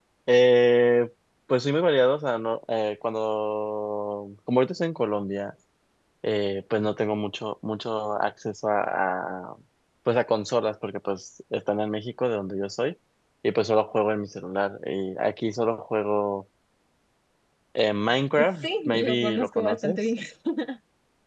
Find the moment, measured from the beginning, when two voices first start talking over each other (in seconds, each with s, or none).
18.4 s